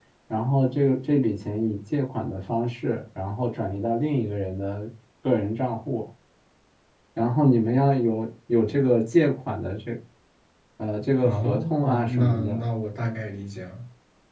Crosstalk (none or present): present